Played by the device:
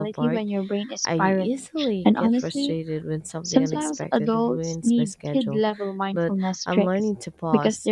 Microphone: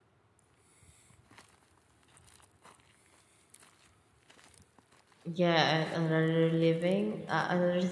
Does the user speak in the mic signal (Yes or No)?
Yes